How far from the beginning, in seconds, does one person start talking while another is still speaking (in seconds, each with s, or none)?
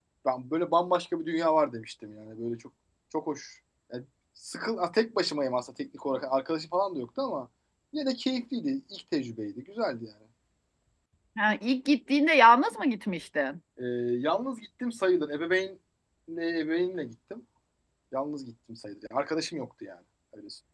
none